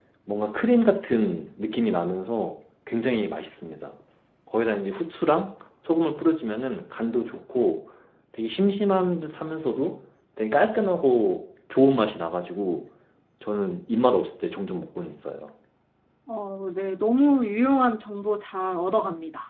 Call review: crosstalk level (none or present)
none